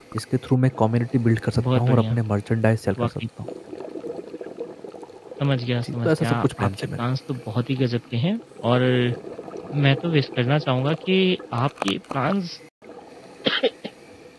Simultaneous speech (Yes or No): Yes